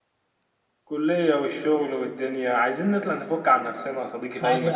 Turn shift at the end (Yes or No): Yes